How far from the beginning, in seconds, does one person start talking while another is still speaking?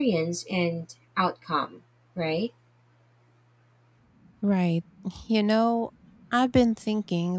none

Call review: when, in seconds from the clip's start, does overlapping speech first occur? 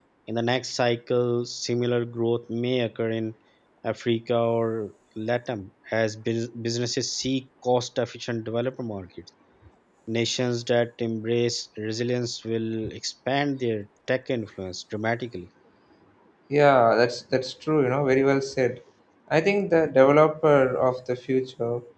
none

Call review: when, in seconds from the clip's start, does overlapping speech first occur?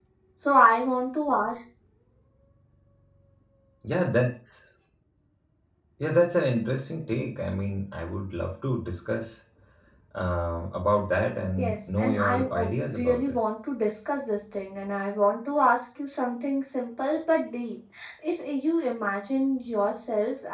11 s

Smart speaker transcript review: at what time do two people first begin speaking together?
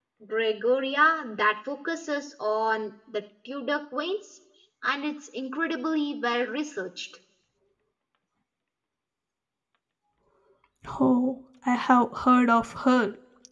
none

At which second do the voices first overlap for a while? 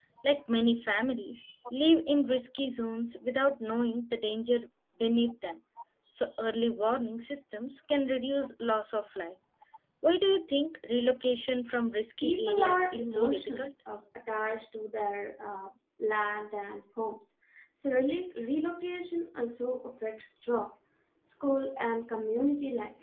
12 s

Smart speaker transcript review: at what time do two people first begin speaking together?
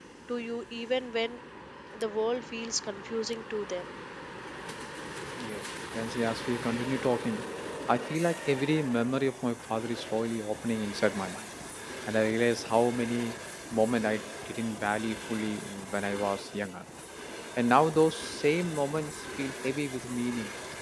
none

